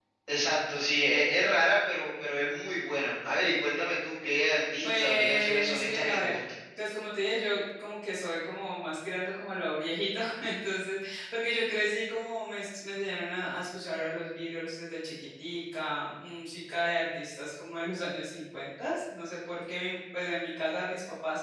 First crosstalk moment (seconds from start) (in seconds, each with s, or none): 4.8 s